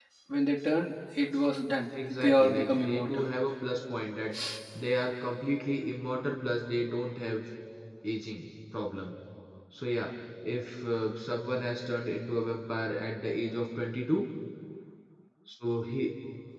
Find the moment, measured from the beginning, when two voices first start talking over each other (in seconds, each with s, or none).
1.9 s